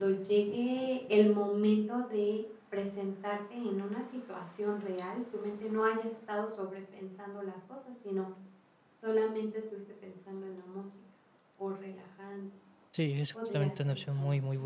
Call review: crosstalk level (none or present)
present